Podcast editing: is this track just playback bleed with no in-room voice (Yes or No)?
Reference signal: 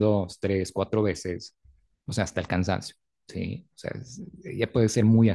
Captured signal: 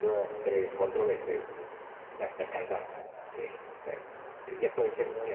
Yes